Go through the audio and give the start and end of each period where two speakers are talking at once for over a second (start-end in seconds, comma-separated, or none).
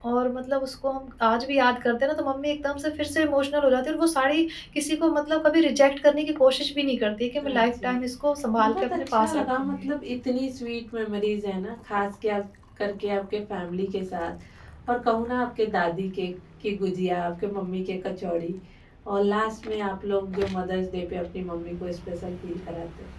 8.6-9.8